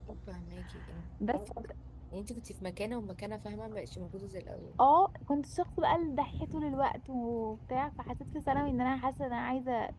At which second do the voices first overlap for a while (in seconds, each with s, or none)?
none